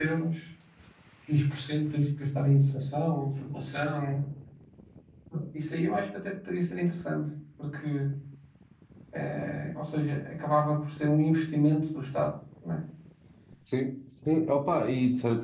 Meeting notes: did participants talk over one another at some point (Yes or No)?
No